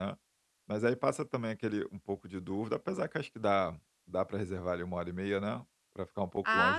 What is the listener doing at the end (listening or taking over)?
taking over